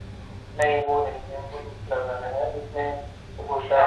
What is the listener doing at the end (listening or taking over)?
listening